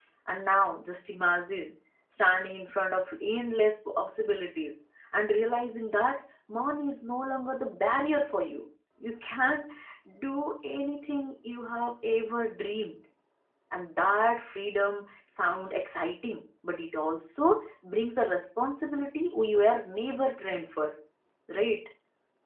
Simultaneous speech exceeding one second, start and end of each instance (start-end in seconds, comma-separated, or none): none